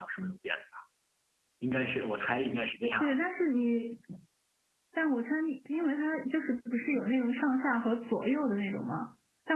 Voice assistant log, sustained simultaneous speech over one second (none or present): none